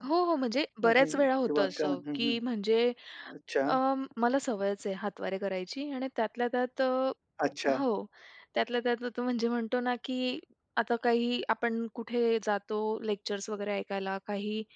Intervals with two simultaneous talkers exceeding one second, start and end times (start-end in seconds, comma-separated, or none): 0.8-2.4